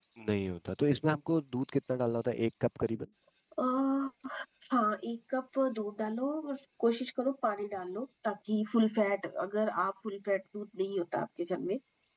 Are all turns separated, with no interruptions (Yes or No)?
Yes